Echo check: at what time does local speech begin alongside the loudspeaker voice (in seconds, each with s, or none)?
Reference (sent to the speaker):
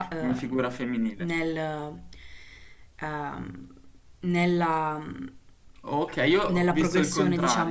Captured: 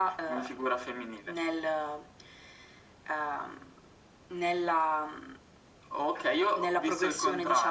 none